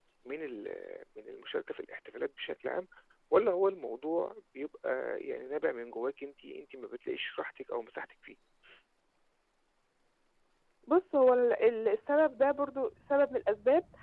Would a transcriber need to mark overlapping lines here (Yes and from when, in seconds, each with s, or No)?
No